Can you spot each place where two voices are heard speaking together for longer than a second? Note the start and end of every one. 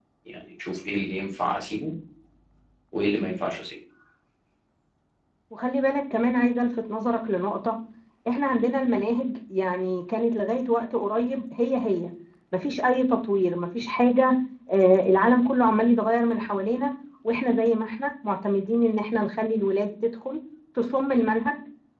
none

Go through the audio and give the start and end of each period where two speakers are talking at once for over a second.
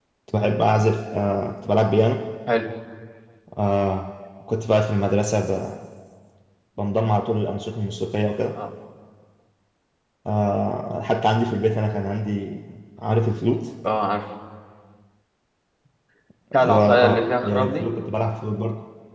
16.6-17.9

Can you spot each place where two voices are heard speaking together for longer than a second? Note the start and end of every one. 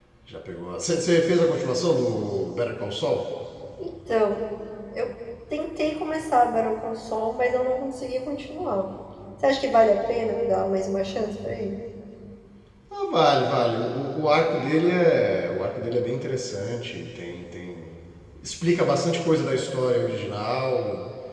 none

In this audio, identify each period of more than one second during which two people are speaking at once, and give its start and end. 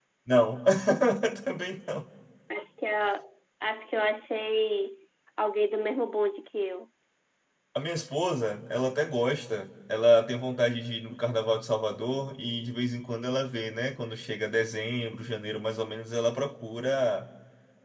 none

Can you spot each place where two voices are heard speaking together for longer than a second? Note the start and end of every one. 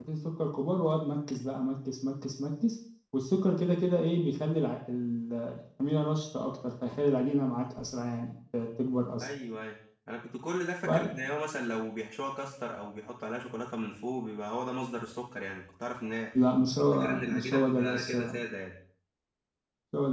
16.9-18.4

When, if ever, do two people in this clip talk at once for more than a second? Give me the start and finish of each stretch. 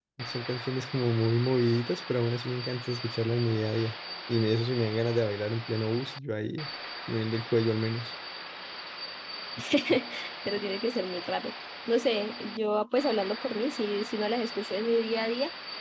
none

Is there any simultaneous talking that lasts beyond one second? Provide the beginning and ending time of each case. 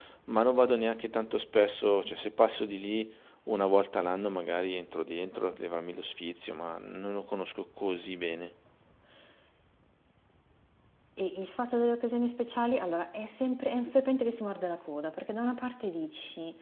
none

